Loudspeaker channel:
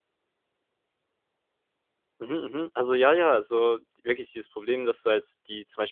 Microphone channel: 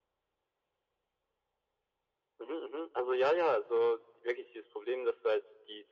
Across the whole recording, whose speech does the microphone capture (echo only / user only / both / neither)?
echo only